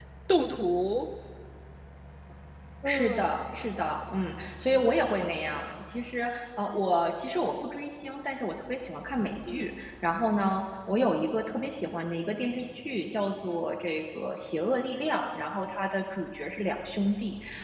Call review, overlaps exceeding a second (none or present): none